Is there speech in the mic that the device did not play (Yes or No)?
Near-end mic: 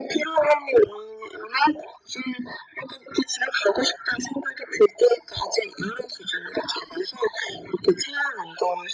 No